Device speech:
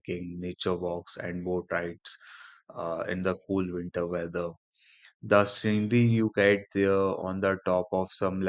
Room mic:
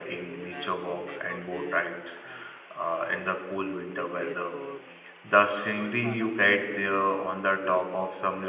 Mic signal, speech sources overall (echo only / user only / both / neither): both